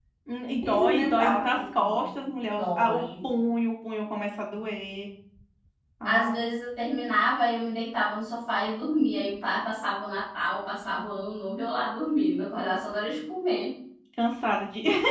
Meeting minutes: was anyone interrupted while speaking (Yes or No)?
Yes